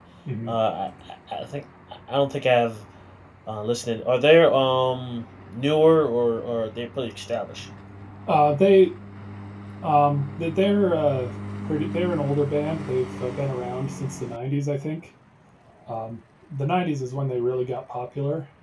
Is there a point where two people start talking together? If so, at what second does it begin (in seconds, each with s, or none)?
none